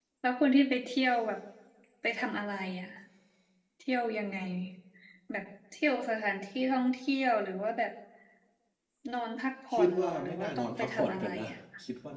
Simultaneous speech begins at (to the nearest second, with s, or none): 10 s